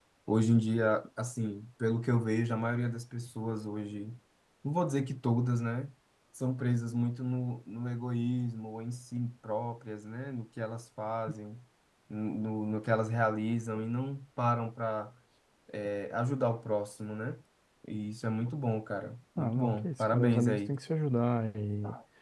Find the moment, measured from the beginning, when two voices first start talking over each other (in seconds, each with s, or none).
19.4 s